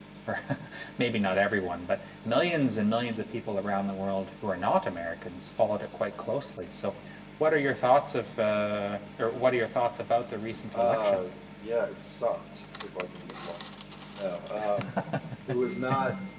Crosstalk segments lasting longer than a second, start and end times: none

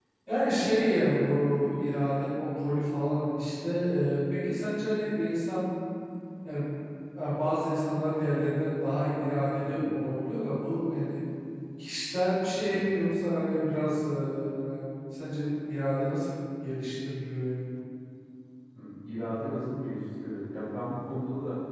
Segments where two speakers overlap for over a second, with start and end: none

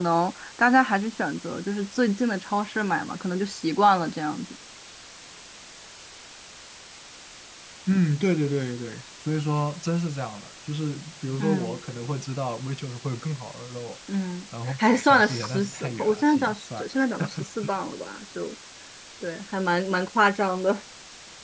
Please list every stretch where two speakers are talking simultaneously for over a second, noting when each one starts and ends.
14.7-16.8

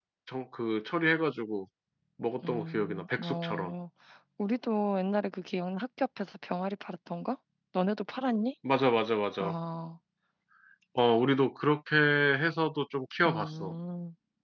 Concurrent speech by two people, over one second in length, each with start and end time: 2.5-3.7

